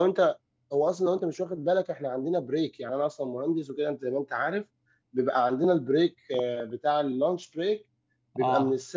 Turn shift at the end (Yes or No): No